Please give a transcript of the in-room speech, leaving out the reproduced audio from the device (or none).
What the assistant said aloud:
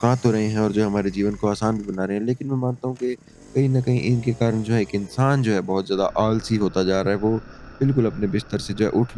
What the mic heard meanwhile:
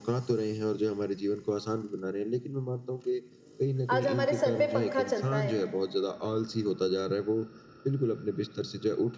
आज हमारे सर पे पंखा चलता है।